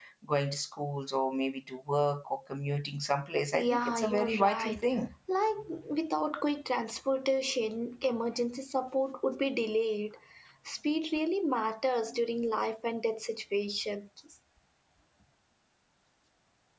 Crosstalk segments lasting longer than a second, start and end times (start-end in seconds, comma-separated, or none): 3.5-4.8